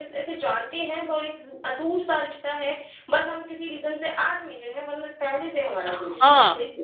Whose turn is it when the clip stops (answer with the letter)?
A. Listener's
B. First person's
A